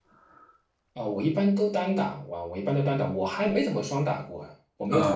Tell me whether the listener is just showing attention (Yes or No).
No